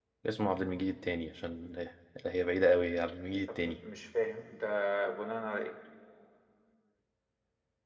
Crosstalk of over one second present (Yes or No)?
No